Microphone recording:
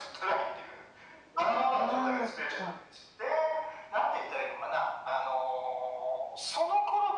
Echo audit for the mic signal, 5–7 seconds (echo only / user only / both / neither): echo only